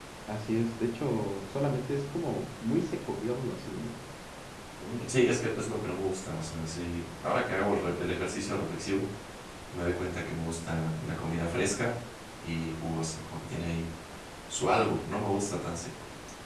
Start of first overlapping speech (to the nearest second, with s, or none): none